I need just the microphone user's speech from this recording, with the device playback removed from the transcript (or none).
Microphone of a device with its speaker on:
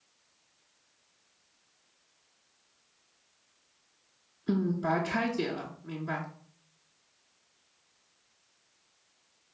嗯，把它拆解了，明白。